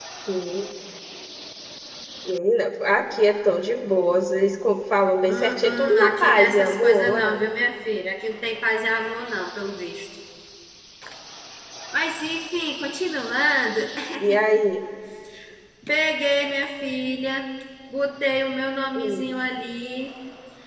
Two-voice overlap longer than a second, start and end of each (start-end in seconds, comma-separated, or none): 5.2-7.4